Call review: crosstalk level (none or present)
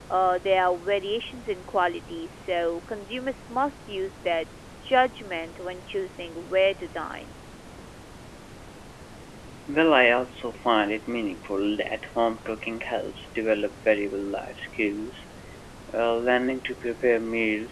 none